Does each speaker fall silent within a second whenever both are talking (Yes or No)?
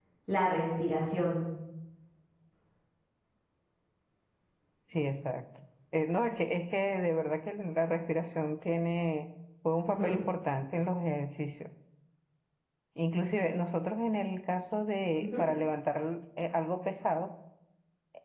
Yes